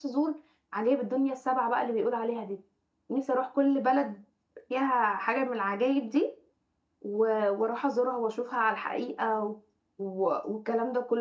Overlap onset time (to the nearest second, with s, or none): none